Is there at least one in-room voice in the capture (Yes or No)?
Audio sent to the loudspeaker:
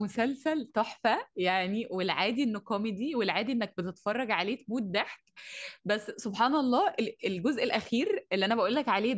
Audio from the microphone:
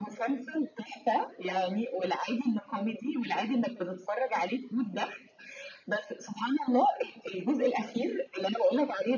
No